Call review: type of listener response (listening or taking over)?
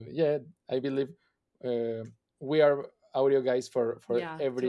taking over